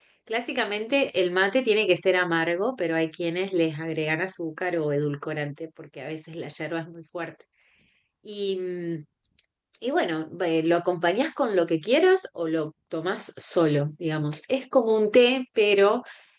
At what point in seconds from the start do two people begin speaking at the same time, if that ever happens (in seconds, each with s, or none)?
none